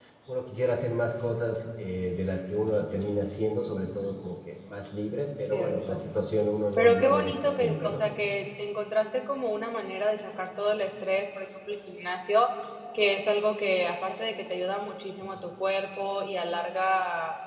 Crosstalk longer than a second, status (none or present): present